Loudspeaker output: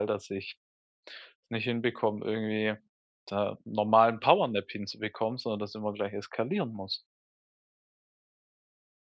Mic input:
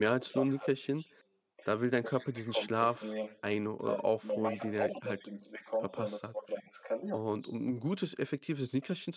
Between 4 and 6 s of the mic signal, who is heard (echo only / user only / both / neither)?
both